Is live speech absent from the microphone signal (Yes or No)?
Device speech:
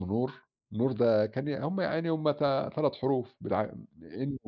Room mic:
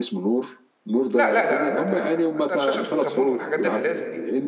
No